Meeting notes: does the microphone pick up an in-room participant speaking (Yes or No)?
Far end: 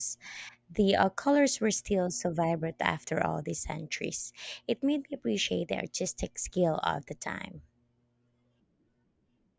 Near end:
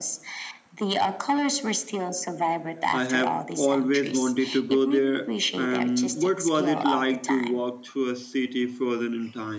Yes